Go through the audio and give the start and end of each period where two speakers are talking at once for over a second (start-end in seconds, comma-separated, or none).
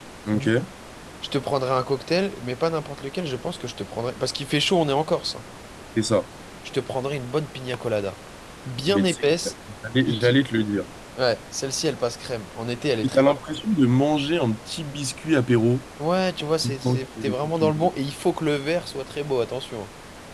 16.6-17.9